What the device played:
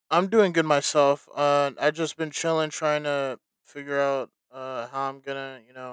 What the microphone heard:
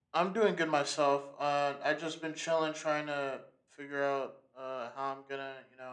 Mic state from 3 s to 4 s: echo only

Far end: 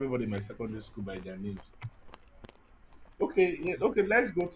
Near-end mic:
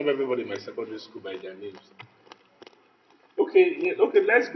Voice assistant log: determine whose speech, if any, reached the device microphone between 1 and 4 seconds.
echo only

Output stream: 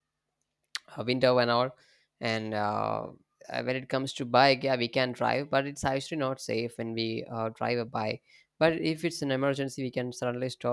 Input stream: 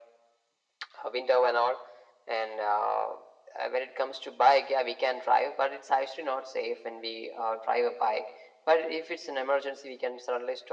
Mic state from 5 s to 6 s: echo only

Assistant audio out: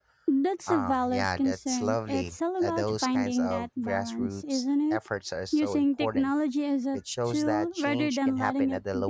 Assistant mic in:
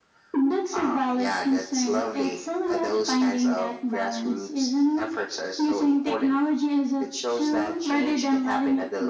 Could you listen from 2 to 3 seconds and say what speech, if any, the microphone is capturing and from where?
echo only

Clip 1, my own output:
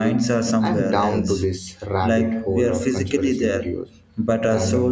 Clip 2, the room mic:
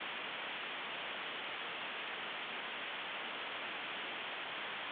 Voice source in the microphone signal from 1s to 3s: neither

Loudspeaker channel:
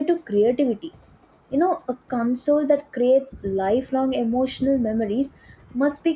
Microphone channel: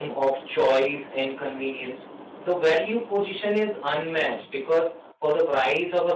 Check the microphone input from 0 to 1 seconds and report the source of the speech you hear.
user only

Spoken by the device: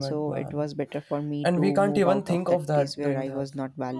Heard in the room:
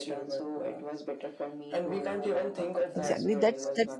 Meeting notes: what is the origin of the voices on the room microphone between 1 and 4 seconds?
both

